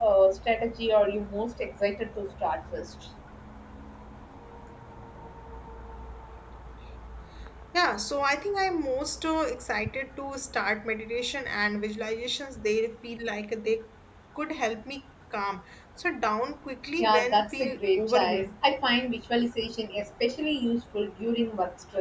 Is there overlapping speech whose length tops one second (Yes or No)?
Yes